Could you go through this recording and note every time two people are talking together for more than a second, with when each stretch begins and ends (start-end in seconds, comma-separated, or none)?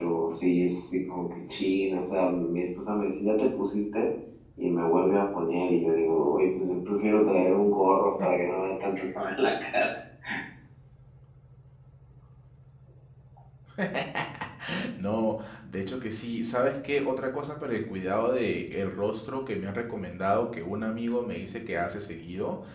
none